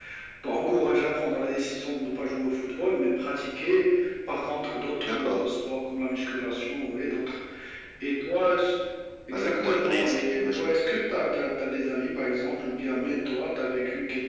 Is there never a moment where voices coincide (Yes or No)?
No